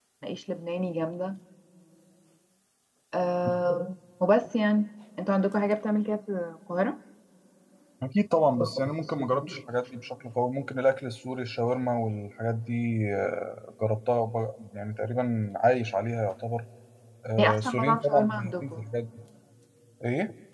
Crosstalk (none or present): present